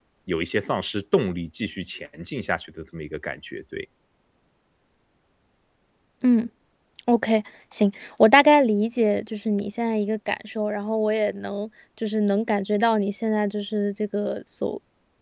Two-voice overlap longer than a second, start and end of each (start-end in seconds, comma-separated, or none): none